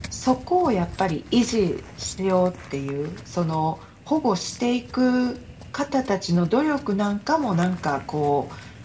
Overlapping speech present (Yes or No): No